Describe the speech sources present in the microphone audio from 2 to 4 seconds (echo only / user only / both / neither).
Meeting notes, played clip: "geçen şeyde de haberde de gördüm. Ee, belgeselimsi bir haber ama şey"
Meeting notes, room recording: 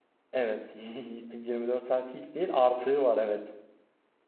user only